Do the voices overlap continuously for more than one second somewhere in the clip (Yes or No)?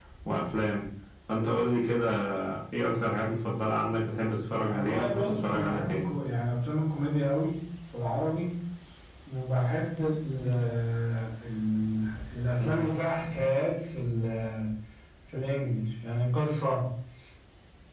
Yes